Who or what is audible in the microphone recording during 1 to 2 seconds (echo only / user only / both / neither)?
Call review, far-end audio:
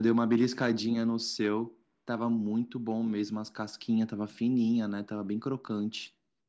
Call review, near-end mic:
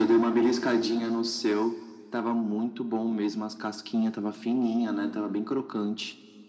echo only